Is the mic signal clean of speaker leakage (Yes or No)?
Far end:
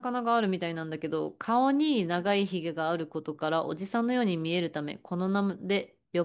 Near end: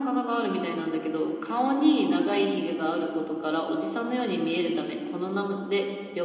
No